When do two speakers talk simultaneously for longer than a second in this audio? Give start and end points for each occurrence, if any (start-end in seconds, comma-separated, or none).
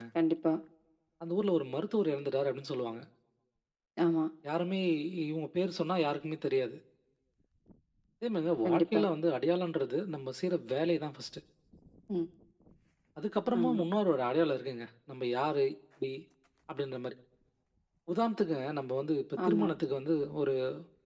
none